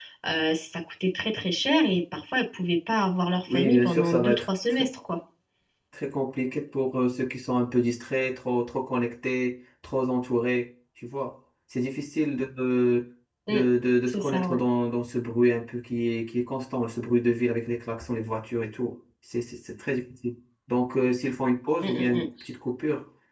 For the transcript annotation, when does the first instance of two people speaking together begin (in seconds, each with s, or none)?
3.5 s